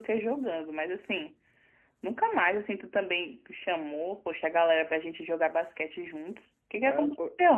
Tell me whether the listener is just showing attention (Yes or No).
No